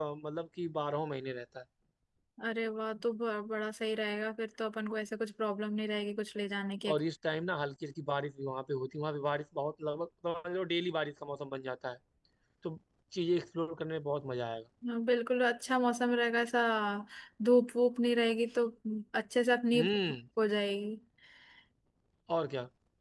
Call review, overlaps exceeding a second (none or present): none